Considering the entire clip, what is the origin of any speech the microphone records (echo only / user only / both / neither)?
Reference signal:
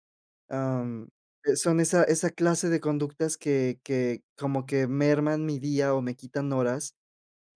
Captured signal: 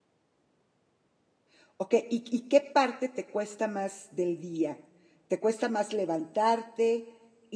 user only